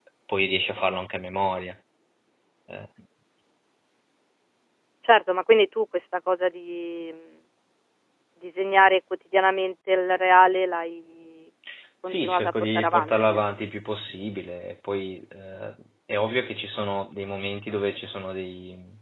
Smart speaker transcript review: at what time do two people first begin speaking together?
12.1 s

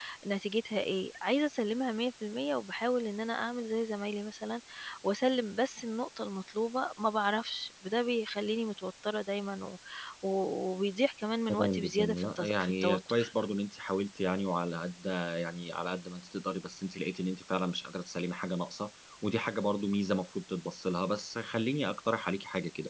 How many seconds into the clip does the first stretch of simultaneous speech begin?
11.5 s

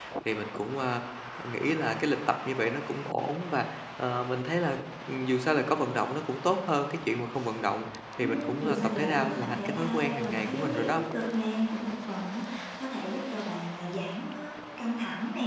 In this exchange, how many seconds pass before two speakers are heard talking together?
8.2 s

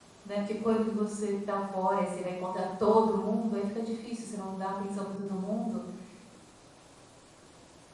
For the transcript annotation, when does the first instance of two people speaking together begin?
none

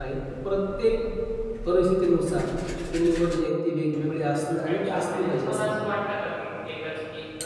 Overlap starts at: 4.7 s

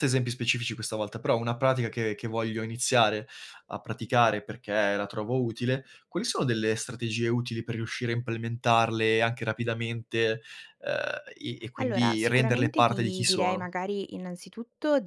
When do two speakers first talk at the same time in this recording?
11.8 s

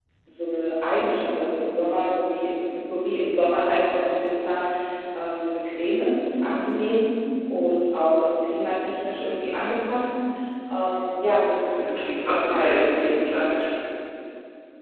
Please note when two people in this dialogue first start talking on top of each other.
11.6 s

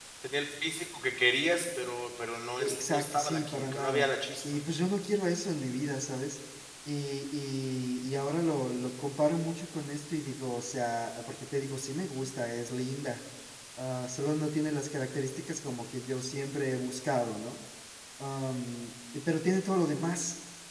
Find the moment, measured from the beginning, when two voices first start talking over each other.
2.6 s

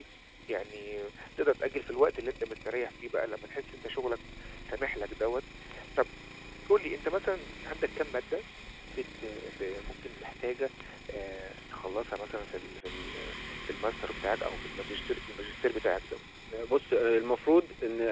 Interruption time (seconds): none

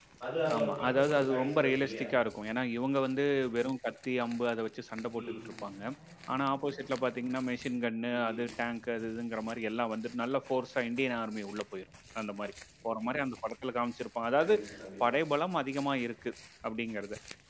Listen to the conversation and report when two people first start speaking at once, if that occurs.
0.6 s

